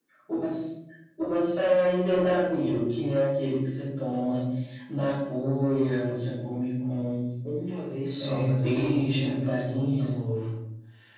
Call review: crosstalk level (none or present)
present